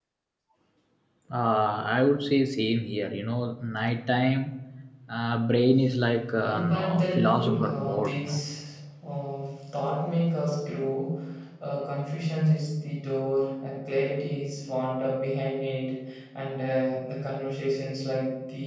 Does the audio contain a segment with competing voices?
Yes, from 6.4 s

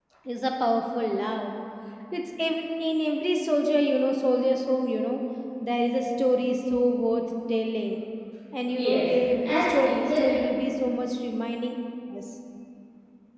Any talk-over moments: Yes, from 8.7 s

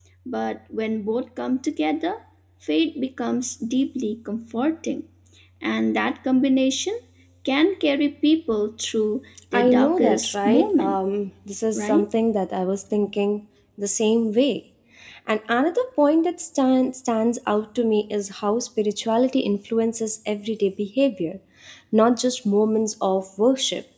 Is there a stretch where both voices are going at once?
Yes, from 9.5 s

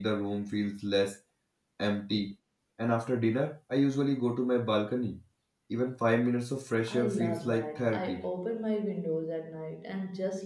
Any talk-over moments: Yes, from 6.9 s

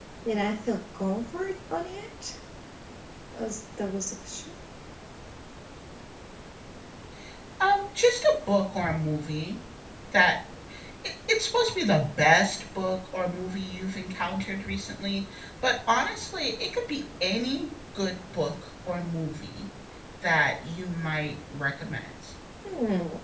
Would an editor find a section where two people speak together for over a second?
No

